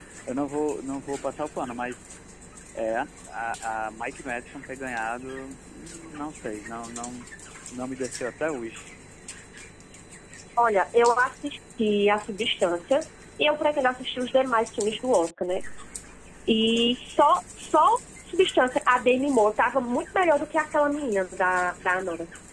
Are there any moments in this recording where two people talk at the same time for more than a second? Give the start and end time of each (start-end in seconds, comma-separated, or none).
none